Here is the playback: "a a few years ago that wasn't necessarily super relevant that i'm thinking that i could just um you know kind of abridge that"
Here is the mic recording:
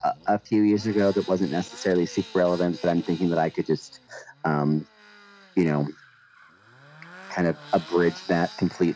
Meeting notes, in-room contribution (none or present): none